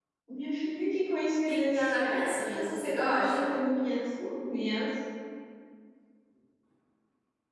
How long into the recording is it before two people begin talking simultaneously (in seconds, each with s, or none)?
1.5 s